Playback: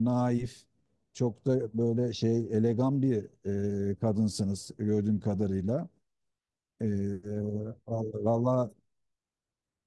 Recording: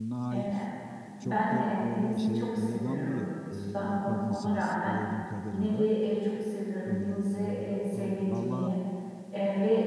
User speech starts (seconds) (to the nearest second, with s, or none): 0 s